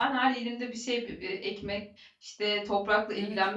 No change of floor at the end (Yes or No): Yes